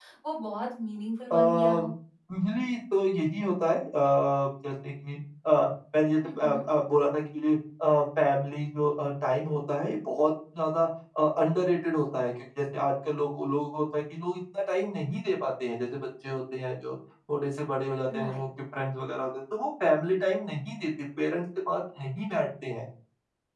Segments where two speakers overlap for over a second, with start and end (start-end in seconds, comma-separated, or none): none